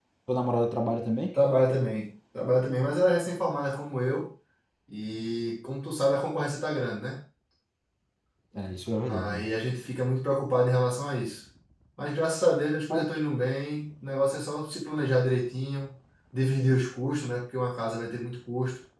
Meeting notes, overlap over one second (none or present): none